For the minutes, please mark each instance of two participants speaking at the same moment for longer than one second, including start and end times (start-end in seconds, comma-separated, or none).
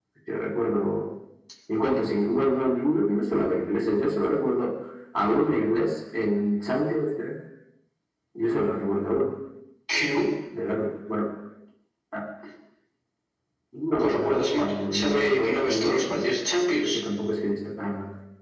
14.0-16.3